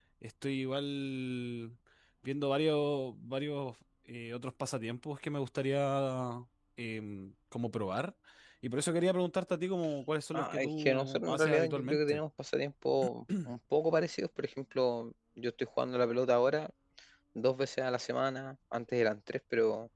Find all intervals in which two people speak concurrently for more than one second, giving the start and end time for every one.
10.3-12.2

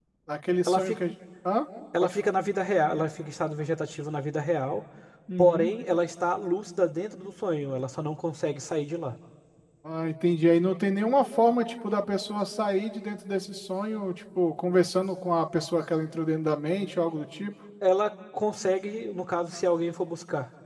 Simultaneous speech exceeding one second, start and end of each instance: none

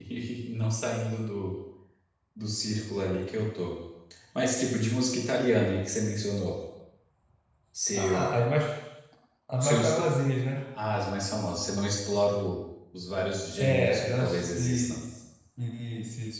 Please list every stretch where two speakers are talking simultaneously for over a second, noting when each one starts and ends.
13.6-15.0

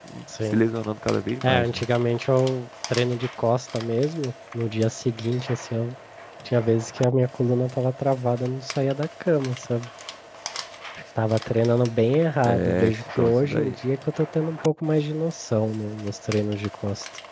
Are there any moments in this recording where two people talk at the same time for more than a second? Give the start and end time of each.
12.4-13.8

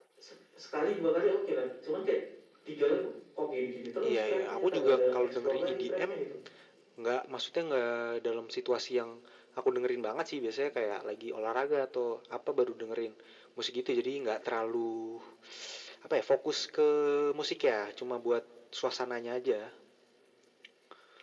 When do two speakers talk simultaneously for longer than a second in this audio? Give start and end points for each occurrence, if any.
4.1-6.1

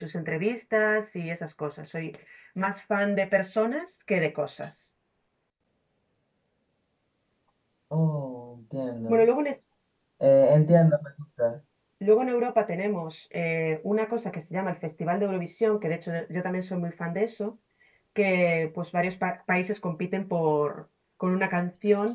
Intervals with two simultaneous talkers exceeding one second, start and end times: none

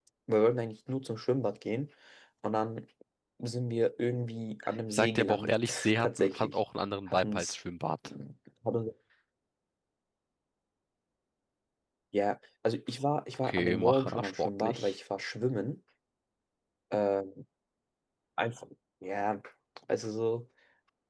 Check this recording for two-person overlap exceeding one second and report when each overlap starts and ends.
4.9-6.5, 13.4-14.9

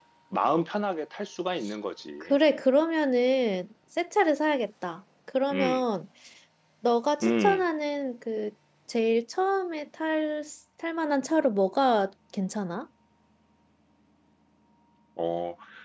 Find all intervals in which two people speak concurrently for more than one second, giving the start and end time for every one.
none

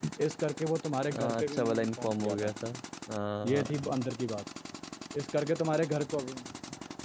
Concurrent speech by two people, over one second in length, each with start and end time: 1.1-2.5

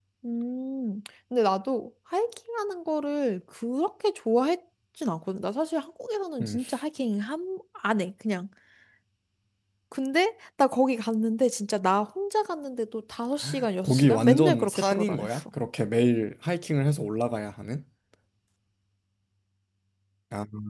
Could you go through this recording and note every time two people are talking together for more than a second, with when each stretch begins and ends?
13.8-15.4

